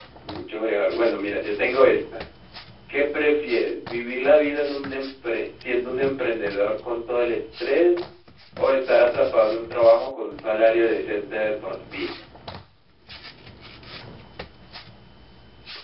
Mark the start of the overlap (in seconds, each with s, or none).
none